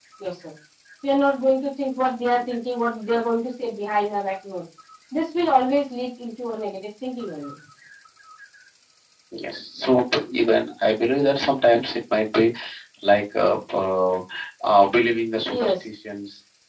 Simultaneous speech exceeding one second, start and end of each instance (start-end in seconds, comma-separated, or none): none